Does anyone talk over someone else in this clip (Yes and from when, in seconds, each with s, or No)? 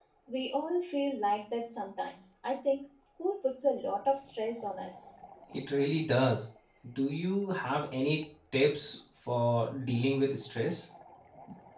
No